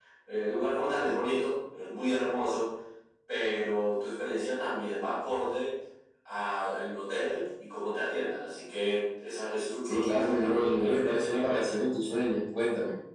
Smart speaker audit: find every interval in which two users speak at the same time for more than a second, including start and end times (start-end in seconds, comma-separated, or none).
9.8-11.8